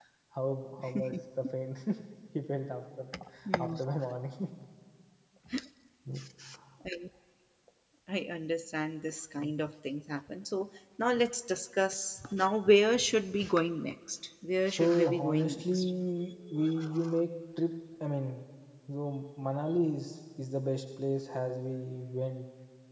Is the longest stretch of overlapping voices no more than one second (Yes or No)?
No